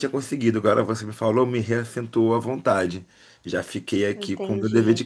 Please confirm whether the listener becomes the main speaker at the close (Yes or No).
No